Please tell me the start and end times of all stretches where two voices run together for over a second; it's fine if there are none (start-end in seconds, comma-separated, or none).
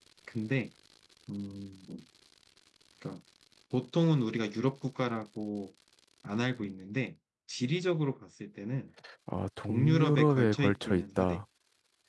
9.6-11.4